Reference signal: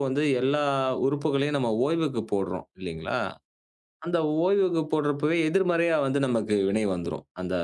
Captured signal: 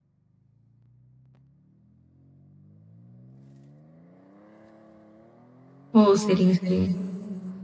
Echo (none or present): none